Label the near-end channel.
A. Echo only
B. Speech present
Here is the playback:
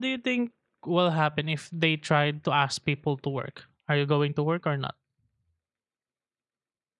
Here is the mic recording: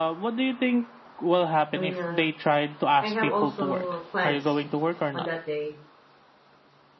B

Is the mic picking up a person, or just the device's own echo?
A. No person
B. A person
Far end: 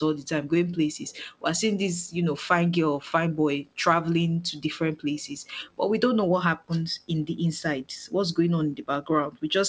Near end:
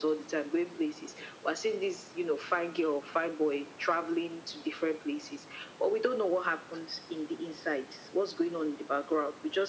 A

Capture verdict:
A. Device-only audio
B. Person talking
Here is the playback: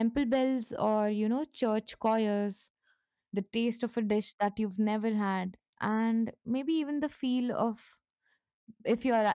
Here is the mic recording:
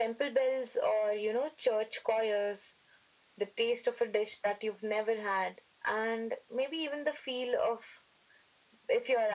A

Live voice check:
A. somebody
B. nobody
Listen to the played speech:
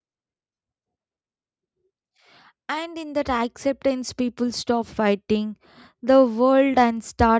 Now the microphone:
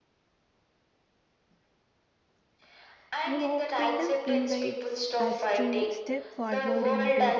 A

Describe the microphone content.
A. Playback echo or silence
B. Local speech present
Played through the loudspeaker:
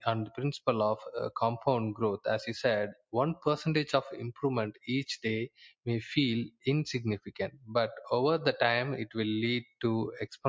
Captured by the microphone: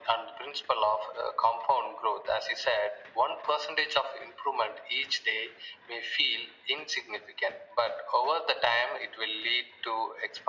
A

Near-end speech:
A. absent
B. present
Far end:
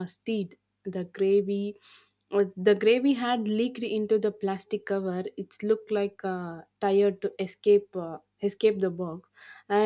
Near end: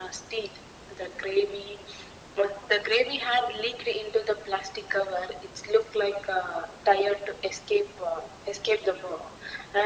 A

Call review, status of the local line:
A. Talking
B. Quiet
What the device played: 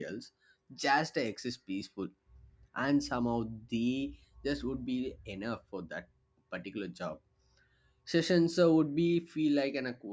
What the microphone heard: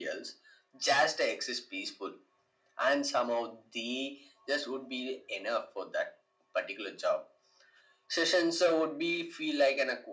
B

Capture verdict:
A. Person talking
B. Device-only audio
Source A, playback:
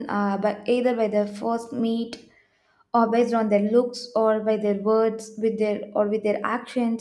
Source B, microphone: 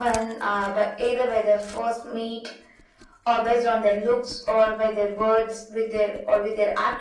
B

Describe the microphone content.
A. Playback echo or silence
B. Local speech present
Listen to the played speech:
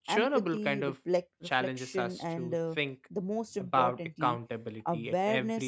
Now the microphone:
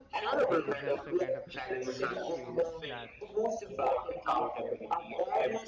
B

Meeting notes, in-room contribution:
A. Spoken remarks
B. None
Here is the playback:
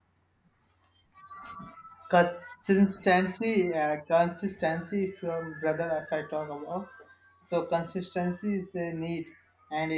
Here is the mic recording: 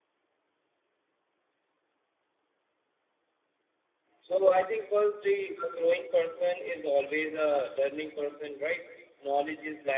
A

